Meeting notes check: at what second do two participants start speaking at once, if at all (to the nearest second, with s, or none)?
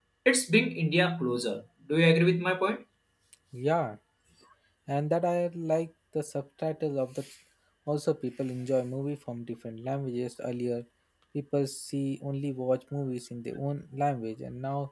none